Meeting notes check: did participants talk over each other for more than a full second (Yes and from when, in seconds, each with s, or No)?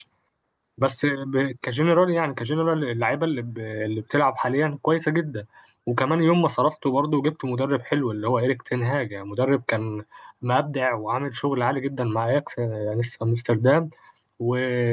No